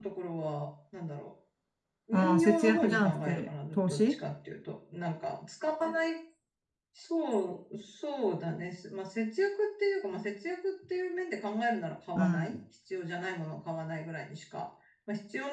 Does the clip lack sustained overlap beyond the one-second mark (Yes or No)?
No